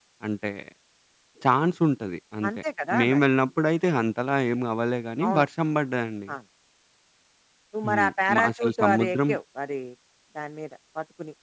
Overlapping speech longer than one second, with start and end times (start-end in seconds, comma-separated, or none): 7.9-9.2